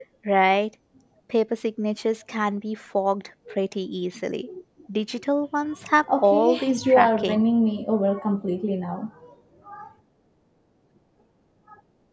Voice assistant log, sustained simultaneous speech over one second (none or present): present